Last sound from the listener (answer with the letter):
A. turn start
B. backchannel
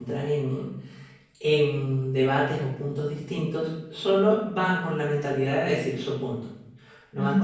B